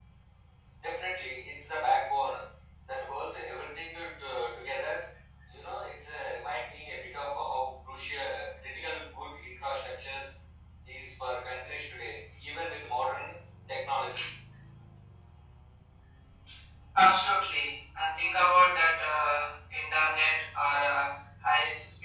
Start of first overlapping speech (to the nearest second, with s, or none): none